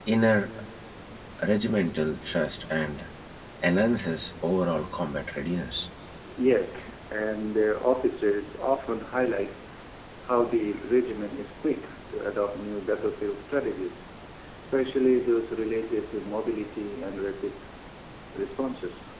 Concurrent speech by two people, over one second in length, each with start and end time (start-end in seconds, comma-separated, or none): none